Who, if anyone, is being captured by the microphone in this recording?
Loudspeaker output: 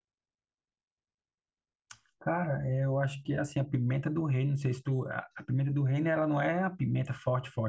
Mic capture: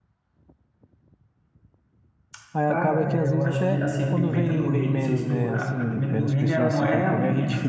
both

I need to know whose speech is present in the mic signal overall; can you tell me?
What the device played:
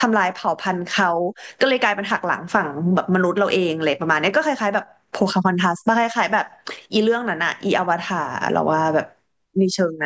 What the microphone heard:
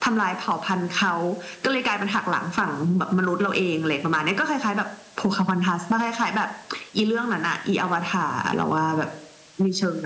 echo only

